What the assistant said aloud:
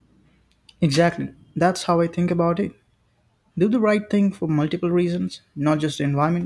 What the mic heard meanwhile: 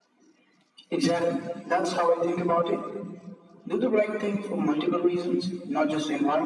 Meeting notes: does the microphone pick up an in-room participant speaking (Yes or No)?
No